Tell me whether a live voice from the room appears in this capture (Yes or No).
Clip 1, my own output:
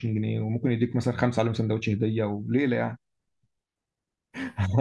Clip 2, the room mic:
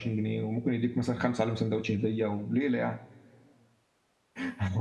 No